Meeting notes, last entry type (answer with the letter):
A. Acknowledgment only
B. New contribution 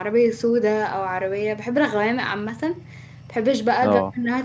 A